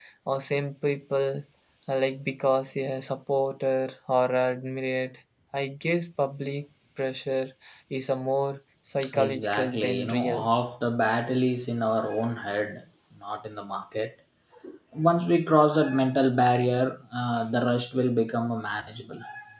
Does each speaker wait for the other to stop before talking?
No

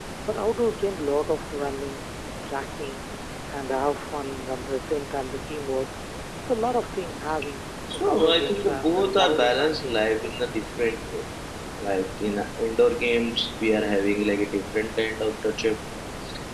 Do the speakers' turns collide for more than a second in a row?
Yes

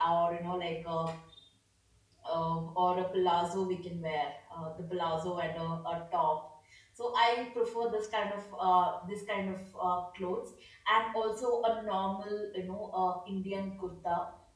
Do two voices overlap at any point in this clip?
No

